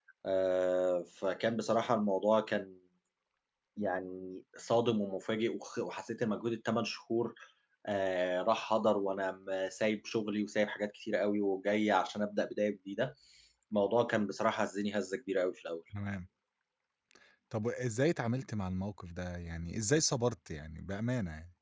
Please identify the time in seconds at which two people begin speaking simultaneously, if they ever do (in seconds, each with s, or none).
none